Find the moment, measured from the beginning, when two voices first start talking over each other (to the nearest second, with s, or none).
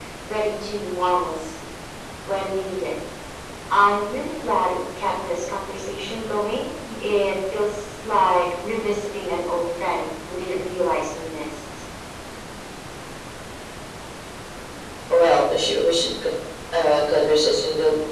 none